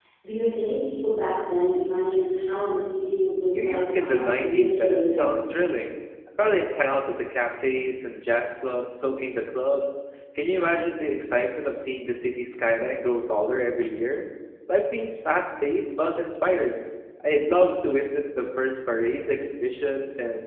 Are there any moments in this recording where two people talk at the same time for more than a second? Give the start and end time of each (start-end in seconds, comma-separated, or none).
3.5-5.2